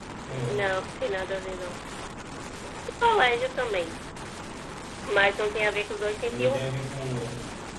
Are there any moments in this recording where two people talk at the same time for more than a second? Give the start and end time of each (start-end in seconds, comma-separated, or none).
none